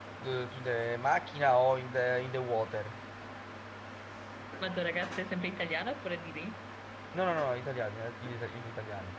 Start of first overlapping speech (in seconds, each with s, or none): none